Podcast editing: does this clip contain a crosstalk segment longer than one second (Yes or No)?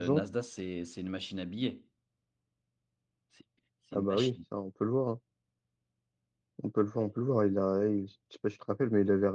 No